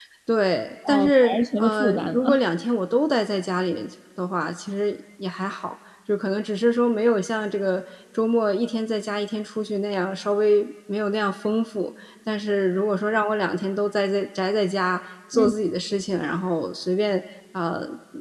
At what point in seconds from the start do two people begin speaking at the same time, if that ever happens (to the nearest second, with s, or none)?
1 s